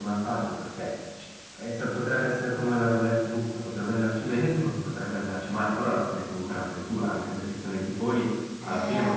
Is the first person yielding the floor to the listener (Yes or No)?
Yes